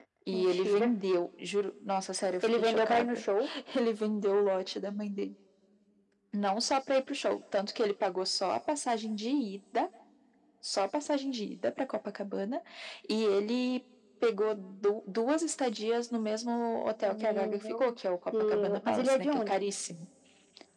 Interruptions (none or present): present